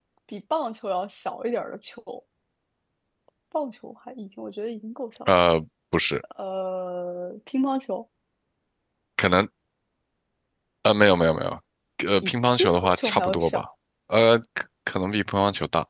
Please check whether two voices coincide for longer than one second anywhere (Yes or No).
Yes